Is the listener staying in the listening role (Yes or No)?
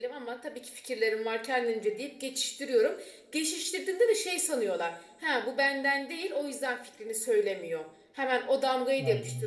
Yes